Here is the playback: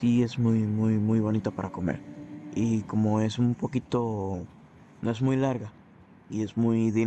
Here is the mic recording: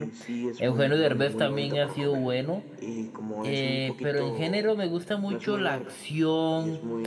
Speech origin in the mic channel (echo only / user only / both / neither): both